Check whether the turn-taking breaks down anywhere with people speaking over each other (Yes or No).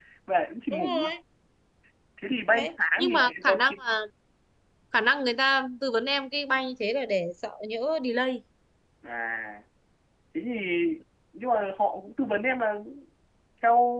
Yes